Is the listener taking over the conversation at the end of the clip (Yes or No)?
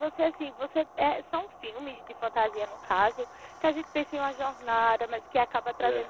No